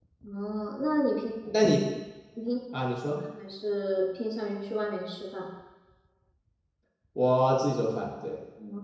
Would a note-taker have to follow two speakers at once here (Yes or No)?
No